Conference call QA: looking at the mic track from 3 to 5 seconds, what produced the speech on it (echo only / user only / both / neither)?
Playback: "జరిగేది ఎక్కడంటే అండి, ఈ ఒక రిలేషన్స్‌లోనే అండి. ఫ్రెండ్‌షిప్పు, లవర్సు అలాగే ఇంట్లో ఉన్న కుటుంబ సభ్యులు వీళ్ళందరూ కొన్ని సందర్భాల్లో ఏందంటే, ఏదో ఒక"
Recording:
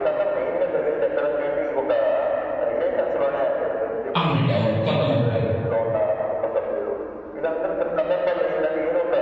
both